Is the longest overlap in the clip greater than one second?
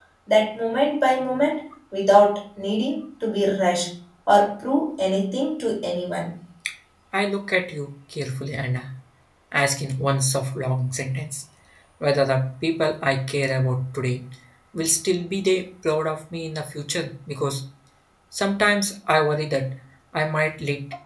No

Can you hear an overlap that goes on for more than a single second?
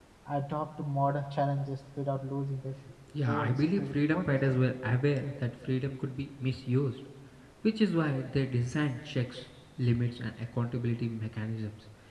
Yes, from 3.2 s

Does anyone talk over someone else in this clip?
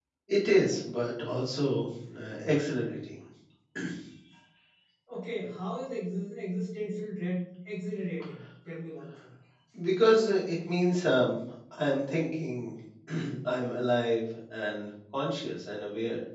No

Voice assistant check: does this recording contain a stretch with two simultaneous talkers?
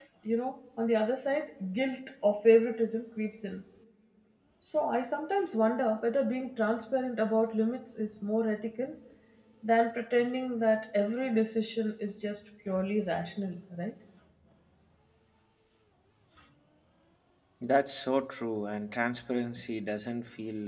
No

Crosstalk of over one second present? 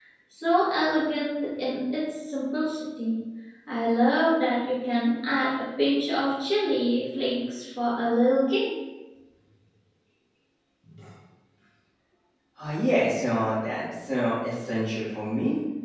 No

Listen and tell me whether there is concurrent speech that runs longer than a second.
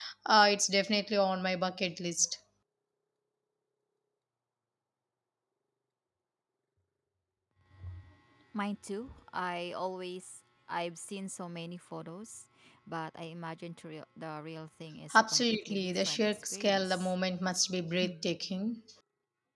Yes, from 15.1 s

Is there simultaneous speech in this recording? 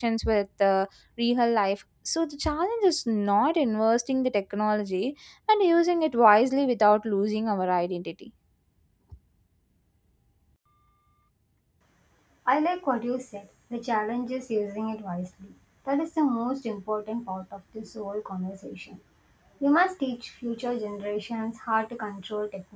No

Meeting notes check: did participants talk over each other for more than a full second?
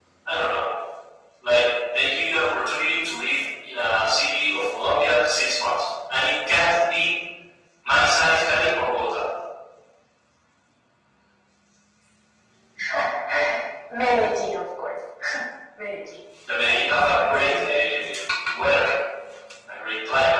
Yes, from 16.7 s

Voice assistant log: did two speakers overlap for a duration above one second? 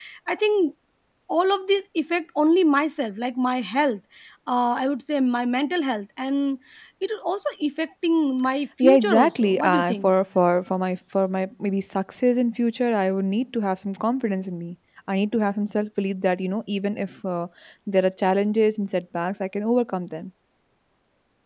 Yes, from 8.8 s

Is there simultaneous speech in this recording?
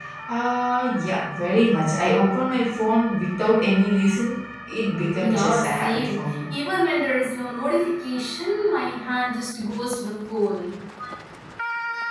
Yes, from 5.2 s

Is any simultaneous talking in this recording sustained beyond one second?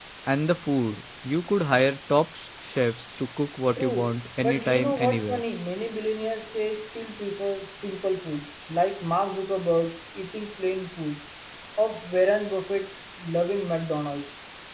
Yes, from 3.8 s

